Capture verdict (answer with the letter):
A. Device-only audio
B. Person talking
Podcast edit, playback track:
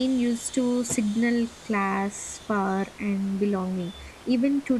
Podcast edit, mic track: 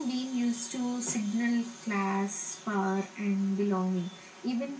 A